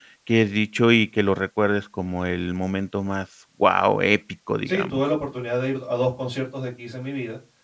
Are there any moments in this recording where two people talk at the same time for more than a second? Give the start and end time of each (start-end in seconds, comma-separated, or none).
none